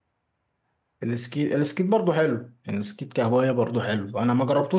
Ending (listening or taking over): listening